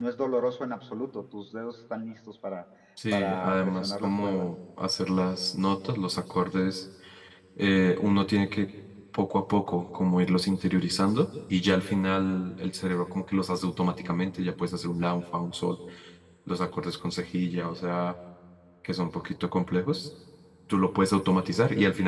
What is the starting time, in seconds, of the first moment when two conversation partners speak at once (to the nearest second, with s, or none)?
3 s